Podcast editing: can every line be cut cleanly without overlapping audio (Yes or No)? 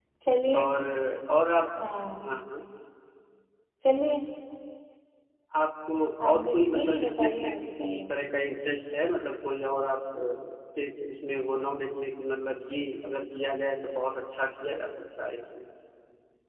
No